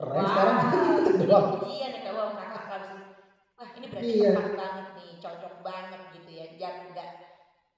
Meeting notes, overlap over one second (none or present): present